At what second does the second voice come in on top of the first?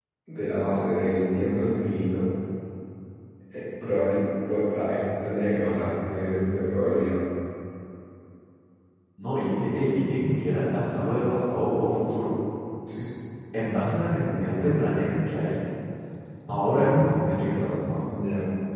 none

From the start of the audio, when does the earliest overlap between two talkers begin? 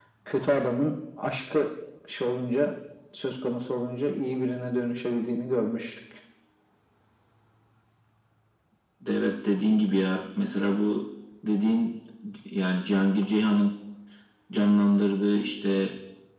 none

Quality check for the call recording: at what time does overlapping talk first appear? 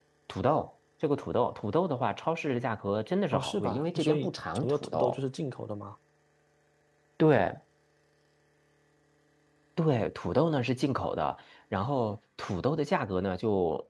3.3 s

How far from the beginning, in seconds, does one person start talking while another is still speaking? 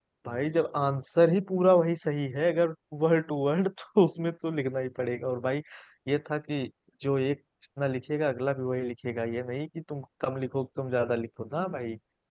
none

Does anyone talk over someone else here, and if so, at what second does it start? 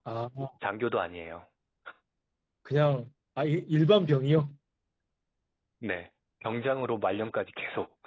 none

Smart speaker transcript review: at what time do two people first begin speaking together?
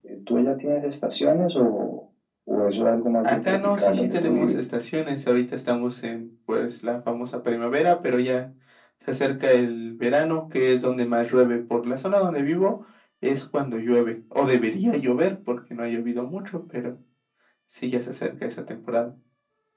3.2 s

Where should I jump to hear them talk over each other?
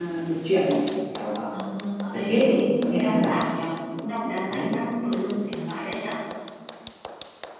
2.1 s

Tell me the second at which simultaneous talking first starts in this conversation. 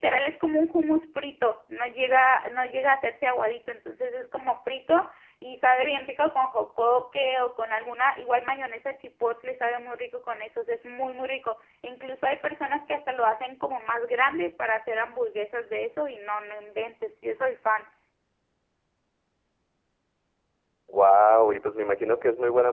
none

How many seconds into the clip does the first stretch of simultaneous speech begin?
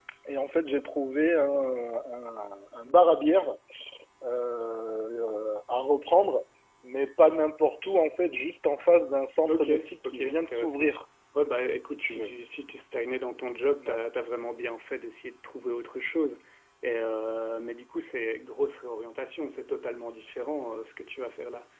9.5 s

